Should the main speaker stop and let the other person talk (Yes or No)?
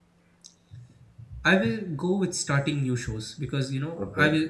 No